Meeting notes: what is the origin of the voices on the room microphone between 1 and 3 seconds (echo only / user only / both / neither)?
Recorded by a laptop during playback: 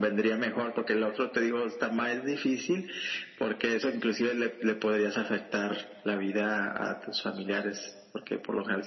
echo only